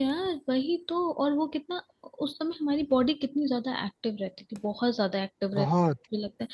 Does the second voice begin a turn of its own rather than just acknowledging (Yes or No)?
No